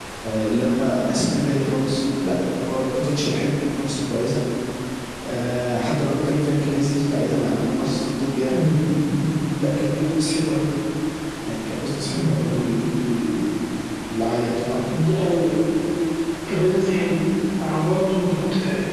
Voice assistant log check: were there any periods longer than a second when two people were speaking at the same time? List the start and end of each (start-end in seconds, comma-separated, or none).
none